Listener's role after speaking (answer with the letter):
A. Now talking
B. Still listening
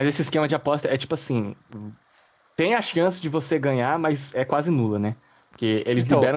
B